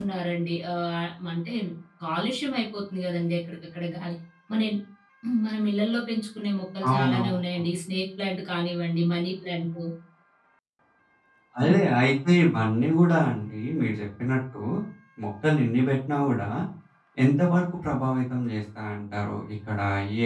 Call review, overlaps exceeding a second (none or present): none